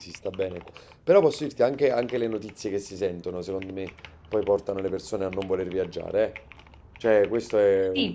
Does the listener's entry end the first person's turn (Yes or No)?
Yes